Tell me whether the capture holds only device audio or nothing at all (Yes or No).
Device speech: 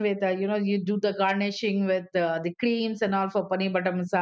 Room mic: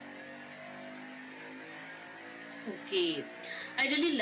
No